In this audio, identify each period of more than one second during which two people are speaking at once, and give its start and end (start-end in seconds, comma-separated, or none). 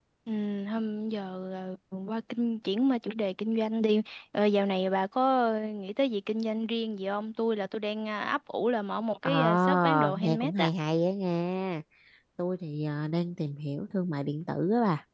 9.2-10.7